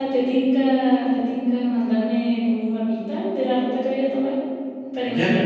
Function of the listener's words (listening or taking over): taking over